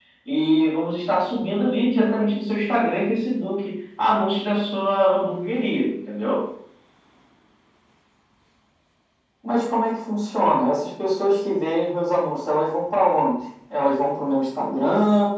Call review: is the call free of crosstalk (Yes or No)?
Yes